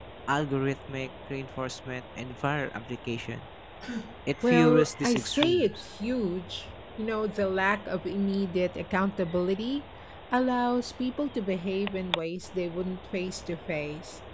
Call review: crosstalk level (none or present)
present